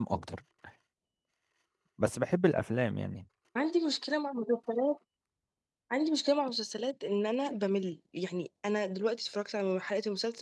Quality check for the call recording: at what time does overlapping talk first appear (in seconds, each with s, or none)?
none